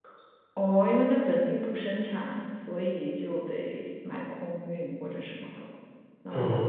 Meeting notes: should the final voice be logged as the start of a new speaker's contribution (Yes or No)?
Yes